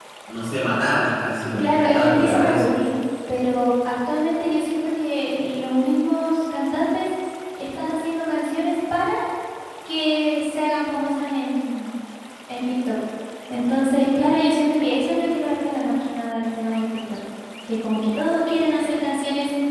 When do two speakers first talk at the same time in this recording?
1.6 s

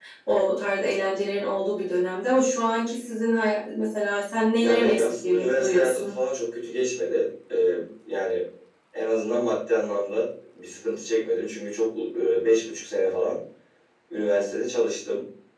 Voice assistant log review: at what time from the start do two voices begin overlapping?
4.6 s

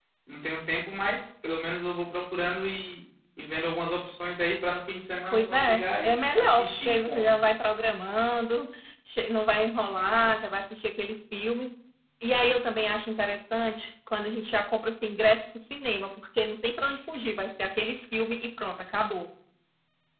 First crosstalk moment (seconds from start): 5.3 s

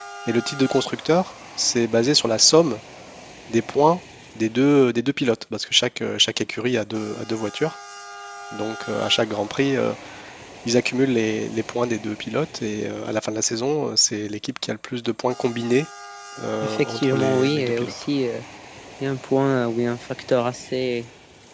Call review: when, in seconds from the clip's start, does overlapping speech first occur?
16.6 s

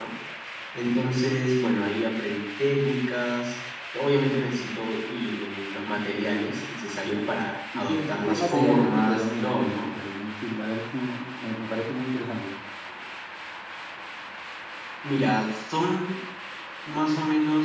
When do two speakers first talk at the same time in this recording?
7.7 s

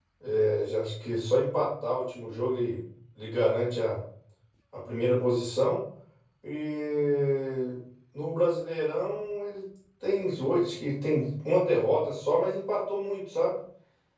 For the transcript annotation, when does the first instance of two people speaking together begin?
none

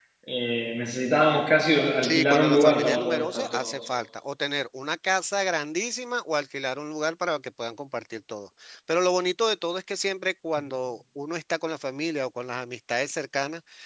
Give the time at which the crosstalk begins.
2.0 s

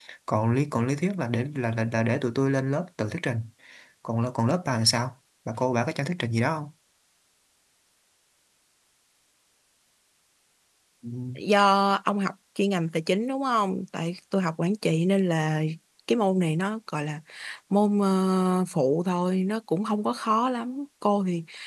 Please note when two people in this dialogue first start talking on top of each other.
none

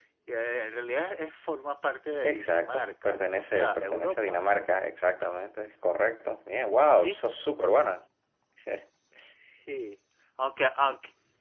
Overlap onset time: 2.2 s

